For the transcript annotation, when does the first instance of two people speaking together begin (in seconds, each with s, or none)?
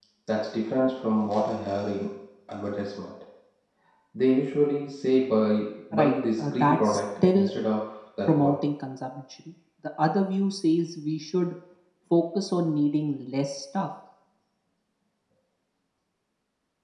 6.0 s